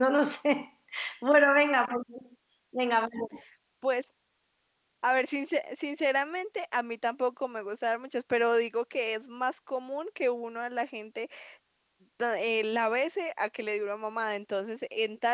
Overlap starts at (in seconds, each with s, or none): none